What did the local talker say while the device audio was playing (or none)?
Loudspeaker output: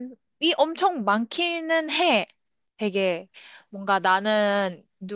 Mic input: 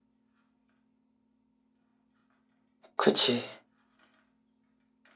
그치,